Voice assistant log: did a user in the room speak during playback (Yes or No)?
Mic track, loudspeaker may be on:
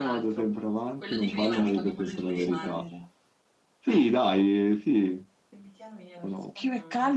Yes